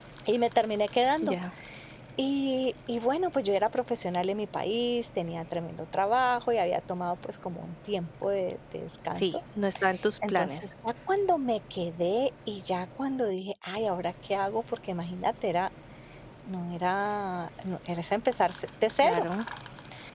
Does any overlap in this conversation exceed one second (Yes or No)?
No